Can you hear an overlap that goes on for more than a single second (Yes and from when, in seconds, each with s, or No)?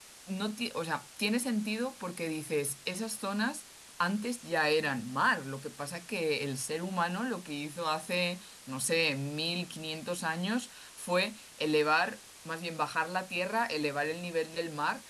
No